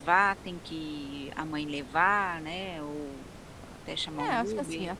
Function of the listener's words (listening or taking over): taking over